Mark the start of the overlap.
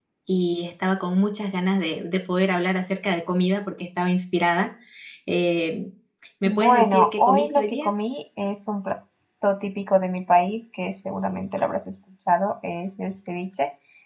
6 s

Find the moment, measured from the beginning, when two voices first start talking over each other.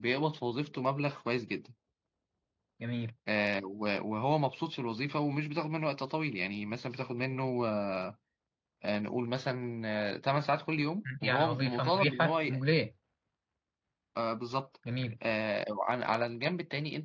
11 s

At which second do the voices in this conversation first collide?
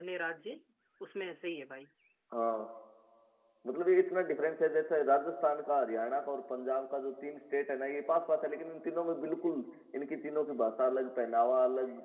none

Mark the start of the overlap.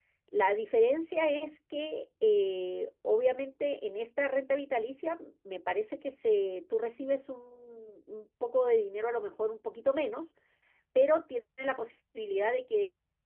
none

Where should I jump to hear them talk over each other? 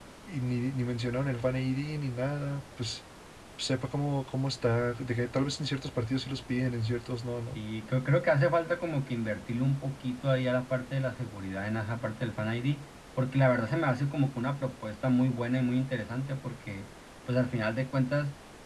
none

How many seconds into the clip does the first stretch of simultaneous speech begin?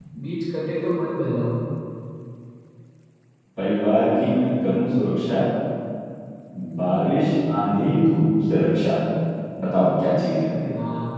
none

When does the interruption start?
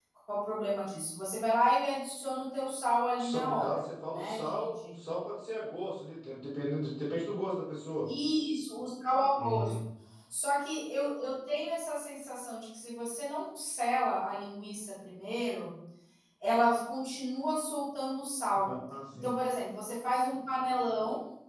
3 s

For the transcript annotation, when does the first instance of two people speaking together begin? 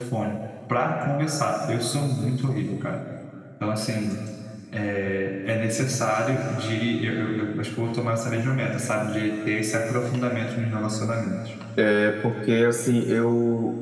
none

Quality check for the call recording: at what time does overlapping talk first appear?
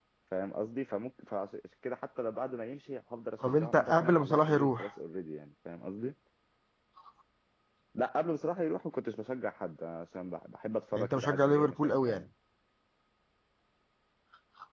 3 s

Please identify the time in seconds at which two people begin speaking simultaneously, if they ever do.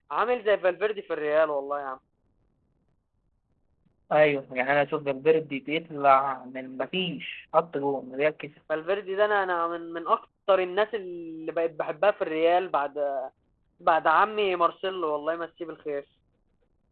none

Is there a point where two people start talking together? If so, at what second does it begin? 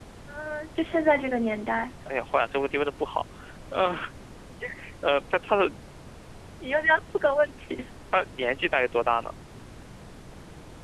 none

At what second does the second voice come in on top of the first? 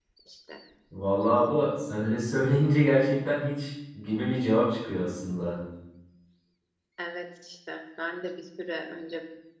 none

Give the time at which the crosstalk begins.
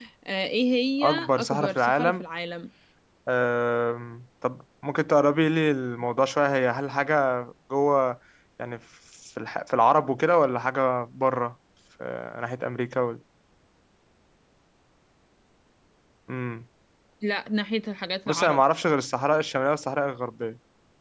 1 s

